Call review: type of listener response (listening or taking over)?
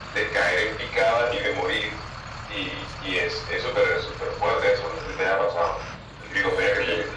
taking over